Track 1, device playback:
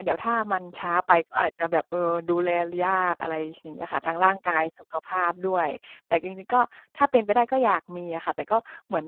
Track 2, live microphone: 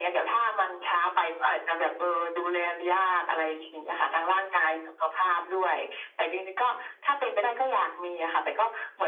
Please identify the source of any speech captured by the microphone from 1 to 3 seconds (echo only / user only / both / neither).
echo only